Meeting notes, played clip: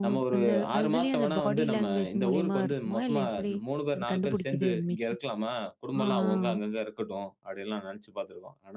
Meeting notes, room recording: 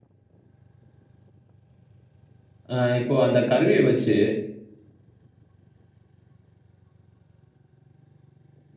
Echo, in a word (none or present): none